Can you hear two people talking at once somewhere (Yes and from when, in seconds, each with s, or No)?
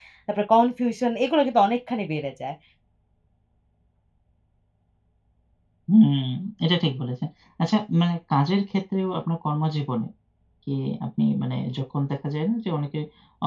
No